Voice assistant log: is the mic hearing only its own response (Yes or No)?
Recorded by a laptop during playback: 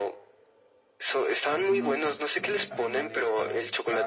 No